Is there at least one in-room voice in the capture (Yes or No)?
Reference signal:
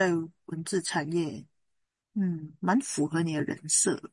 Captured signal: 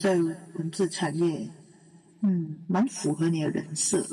No